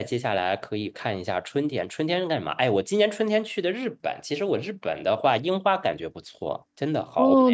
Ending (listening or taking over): taking over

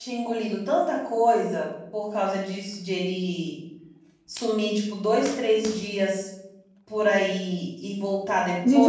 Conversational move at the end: taking over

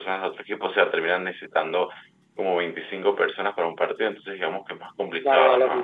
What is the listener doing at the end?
taking over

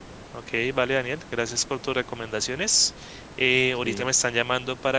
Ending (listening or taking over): listening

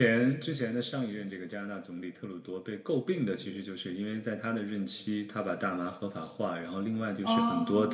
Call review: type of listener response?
listening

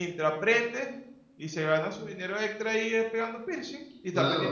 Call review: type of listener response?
taking over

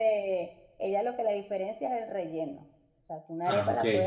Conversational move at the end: listening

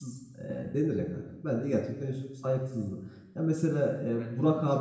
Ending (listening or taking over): listening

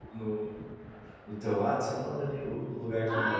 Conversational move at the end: taking over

